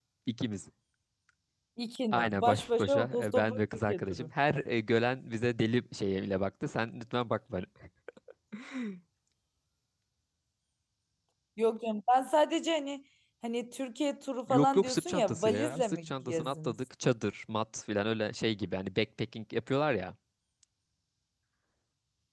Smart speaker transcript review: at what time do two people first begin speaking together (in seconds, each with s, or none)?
2.1 s